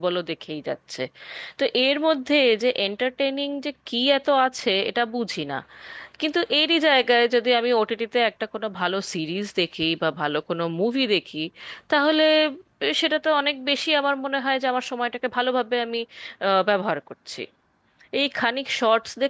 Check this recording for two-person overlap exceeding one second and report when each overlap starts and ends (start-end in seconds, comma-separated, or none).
none